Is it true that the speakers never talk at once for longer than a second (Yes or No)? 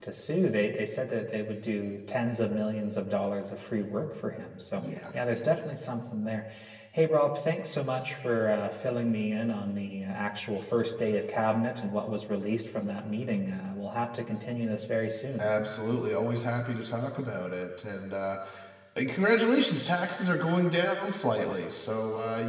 Yes